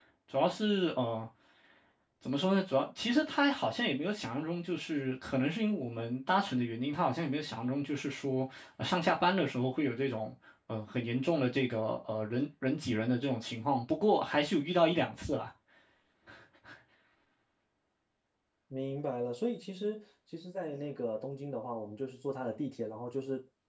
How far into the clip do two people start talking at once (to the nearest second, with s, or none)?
none